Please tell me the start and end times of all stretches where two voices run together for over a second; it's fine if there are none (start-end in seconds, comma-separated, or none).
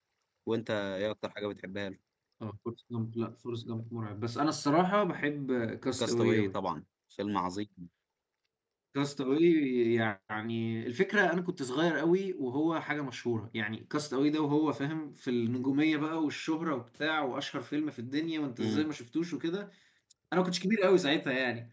none